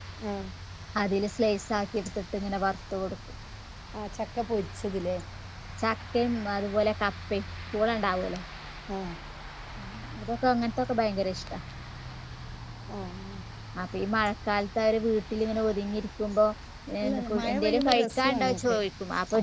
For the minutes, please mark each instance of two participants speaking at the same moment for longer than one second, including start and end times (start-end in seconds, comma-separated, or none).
17.0-18.8